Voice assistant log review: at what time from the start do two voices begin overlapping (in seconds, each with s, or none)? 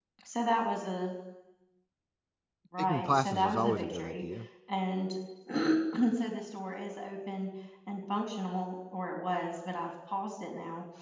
2.8 s